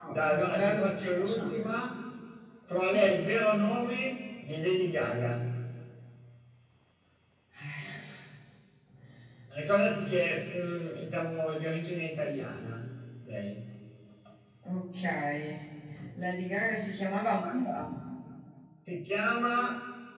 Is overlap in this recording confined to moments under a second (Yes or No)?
No